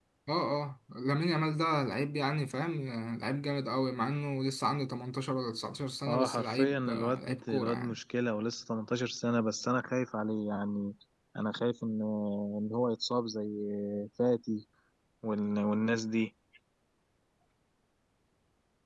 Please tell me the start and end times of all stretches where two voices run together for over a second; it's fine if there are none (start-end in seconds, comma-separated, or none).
6.1-8.0